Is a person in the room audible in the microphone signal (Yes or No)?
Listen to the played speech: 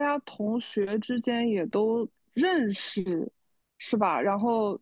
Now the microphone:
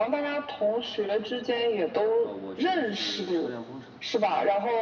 Yes